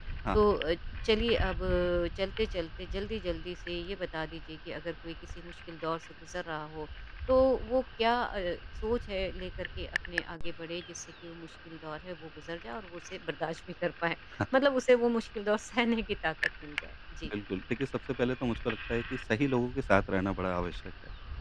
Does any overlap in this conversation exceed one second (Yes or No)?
No